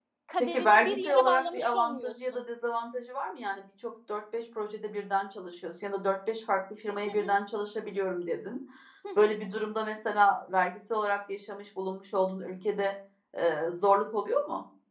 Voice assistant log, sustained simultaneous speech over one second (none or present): present